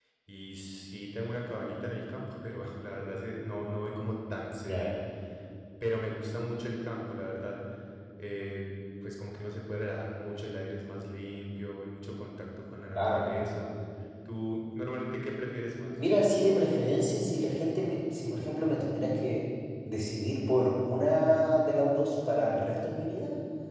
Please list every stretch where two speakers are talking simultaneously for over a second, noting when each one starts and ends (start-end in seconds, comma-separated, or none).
none